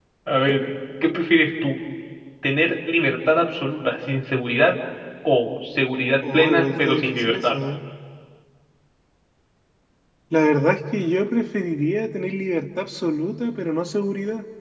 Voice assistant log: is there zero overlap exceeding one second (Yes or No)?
No